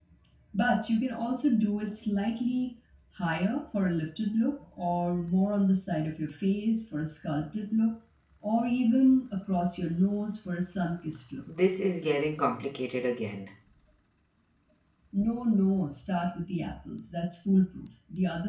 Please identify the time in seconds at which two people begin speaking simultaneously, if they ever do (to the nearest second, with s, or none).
none